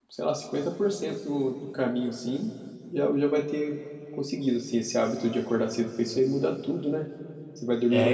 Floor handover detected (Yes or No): No